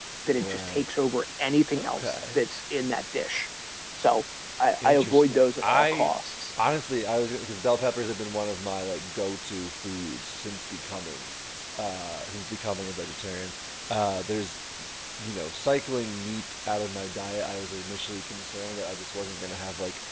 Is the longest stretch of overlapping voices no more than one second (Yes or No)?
No